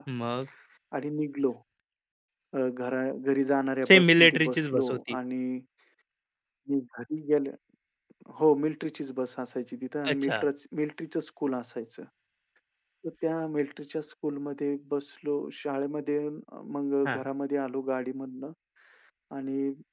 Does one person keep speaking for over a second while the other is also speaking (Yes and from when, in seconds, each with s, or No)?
Yes, from 3.9 s